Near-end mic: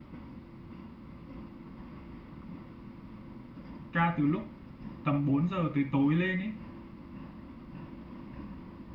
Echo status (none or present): none